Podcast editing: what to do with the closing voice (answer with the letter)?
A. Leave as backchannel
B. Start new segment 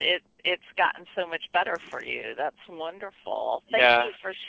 A